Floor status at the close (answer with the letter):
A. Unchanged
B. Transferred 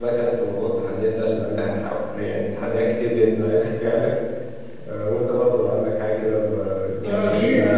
B